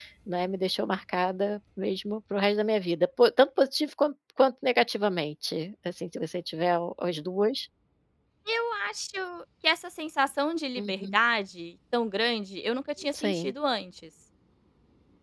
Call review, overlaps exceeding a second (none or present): none